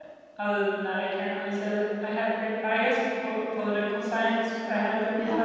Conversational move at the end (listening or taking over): listening